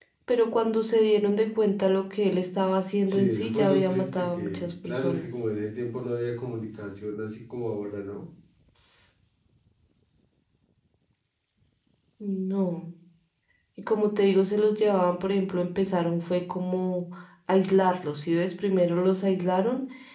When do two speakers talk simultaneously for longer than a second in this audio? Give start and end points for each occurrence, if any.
3.1-5.3

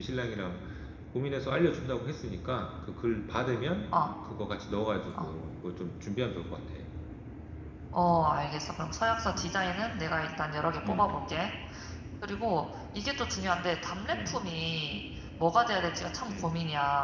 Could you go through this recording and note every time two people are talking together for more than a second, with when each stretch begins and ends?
none

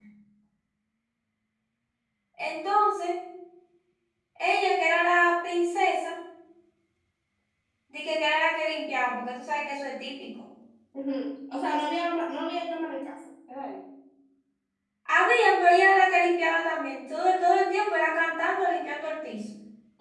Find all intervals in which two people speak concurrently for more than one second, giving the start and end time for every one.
none

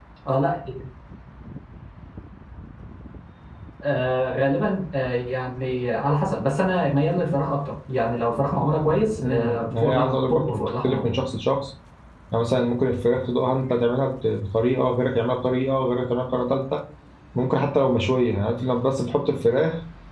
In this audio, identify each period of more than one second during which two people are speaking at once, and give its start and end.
9.2-11.2

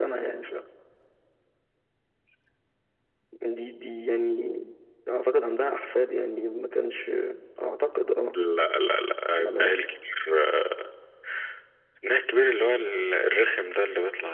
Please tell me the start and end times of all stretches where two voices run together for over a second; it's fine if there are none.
none

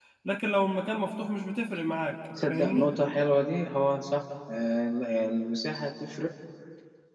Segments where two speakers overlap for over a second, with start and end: none

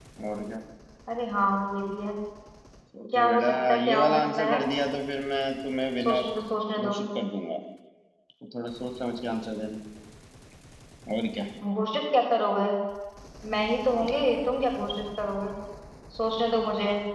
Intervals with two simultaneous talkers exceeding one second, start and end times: 3.1-4.6

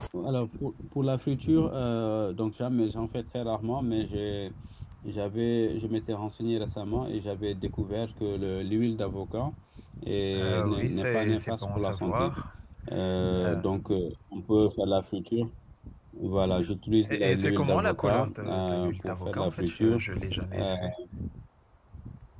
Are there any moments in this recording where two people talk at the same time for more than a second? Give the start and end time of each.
10.3-12.3, 17.1-20.0

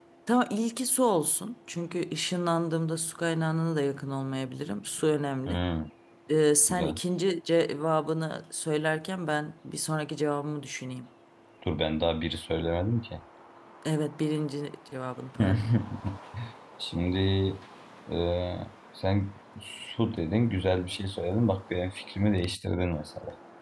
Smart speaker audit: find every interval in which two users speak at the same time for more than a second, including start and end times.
none

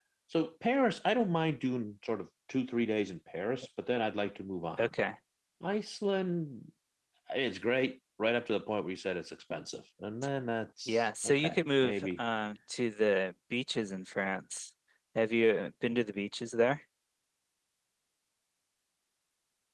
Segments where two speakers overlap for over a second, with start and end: 10.9-12.2

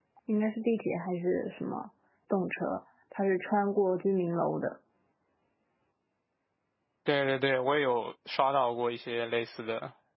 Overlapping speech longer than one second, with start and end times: none

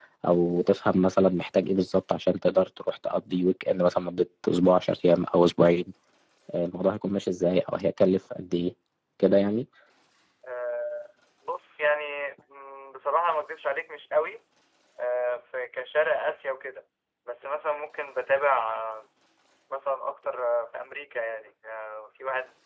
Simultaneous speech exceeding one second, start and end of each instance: none

